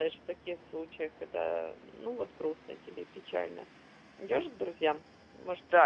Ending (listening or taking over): taking over